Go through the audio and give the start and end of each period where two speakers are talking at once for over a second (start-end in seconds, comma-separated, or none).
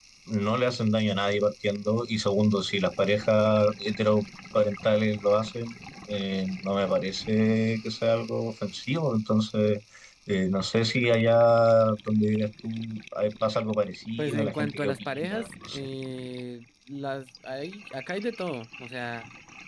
14.2-15.9